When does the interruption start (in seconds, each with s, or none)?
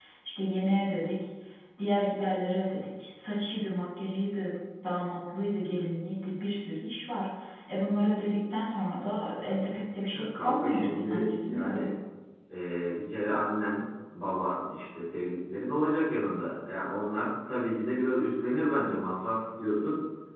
10.1 s